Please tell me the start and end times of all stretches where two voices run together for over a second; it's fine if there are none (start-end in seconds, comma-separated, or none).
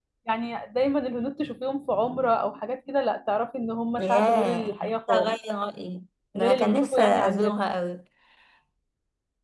4.0-5.4, 6.4-7.6